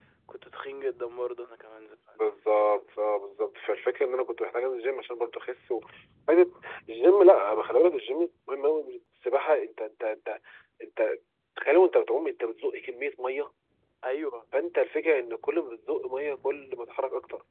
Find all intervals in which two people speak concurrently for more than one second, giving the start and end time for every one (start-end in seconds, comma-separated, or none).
none